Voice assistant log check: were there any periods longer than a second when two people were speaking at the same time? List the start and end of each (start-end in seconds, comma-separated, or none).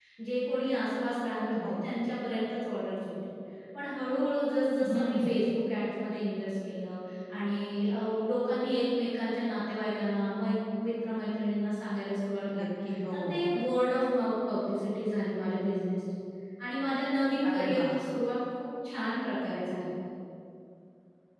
none